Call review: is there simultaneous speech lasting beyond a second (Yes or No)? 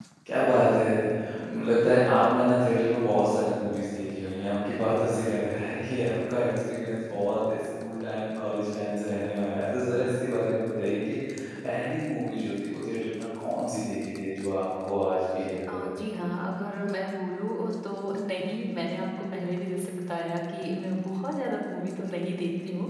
No